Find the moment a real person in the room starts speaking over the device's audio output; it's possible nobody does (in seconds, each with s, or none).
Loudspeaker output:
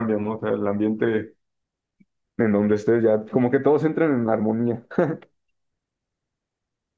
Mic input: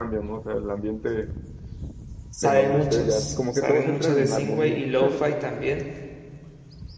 2.3 s